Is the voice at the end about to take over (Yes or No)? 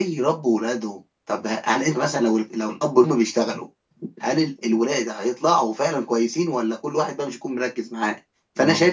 No